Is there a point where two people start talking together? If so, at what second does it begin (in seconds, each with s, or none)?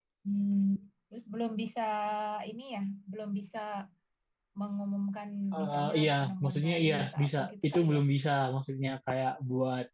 5.5 s